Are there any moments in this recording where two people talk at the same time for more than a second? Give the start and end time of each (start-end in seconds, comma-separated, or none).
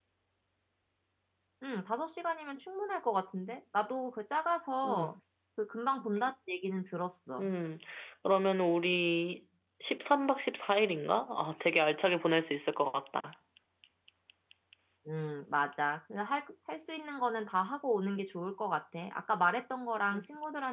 none